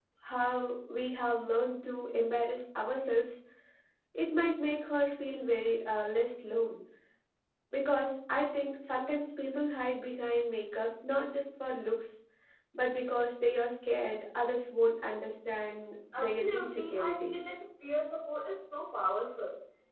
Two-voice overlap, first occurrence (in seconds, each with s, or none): 16.1 s